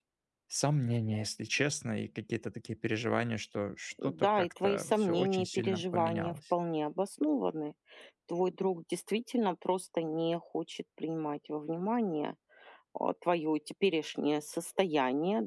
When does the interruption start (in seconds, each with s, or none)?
4.0 s